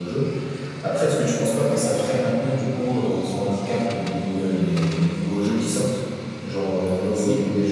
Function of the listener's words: listening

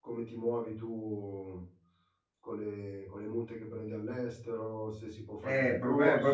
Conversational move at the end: taking over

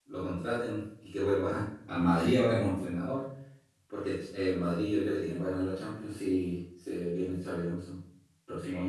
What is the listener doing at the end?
taking over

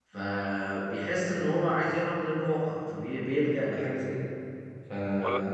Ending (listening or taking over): listening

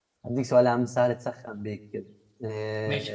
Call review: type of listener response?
taking over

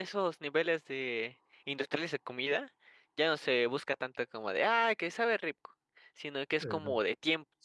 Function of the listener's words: listening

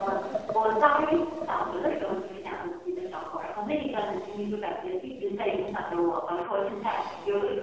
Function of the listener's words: listening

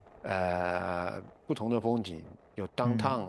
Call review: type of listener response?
taking over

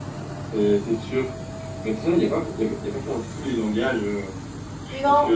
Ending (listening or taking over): taking over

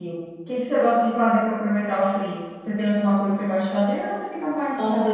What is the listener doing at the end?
taking over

